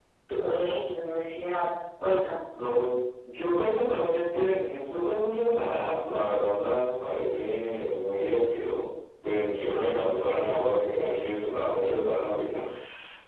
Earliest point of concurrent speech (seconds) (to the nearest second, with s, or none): none